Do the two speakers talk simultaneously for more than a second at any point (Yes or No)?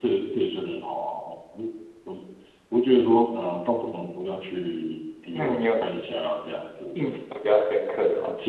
No